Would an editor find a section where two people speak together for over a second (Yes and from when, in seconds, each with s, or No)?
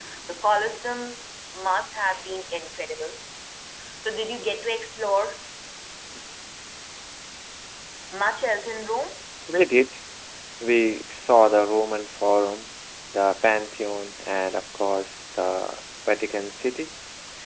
No